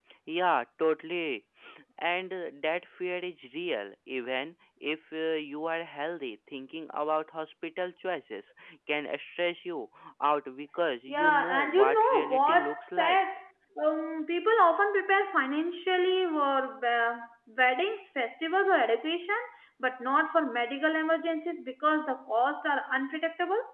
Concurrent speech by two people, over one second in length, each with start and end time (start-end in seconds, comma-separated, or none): 11.1-13.2